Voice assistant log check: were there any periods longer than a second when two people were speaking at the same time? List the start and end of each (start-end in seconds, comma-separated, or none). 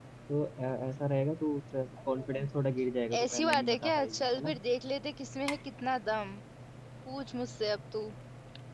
3.2-4.5